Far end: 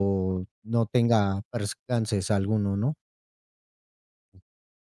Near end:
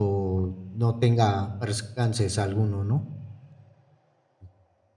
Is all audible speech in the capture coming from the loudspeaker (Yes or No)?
Yes